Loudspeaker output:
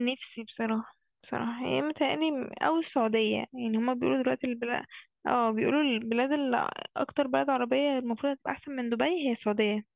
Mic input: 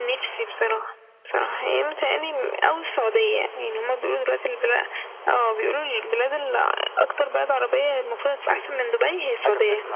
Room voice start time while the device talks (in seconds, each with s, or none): 8.4 s